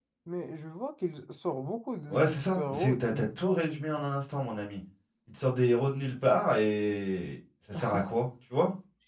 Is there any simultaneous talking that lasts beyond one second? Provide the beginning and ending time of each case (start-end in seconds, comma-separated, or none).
2.1-3.6